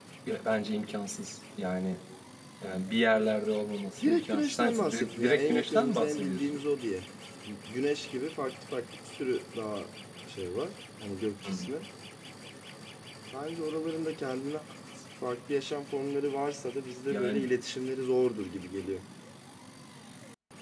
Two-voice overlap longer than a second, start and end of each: 4.0-6.6

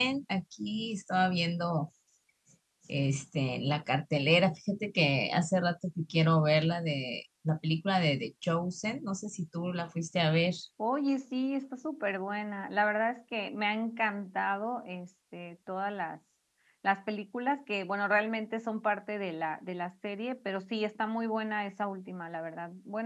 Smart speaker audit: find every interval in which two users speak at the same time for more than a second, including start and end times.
none

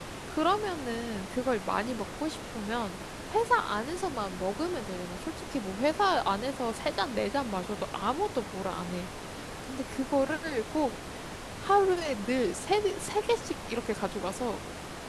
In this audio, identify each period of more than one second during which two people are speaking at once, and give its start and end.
none

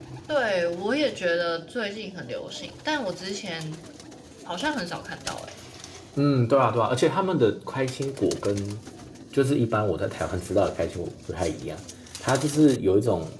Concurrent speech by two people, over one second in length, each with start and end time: none

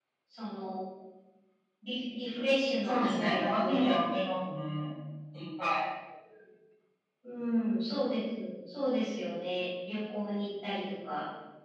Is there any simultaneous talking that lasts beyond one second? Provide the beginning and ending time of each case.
2.8-4.2

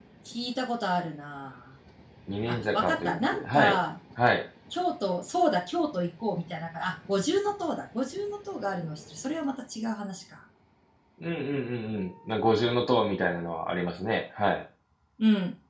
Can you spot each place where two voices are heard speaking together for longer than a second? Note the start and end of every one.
2.5-3.8

